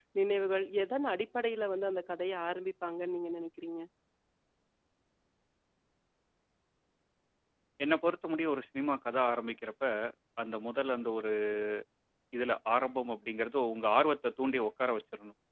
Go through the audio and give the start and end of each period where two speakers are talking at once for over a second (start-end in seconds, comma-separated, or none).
none